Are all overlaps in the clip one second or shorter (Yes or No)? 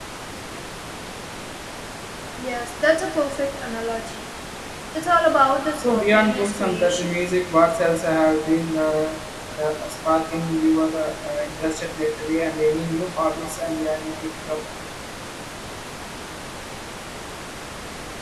No